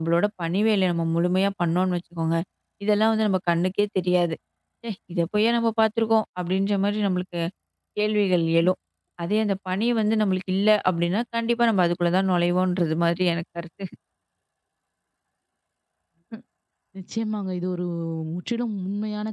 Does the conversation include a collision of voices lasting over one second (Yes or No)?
No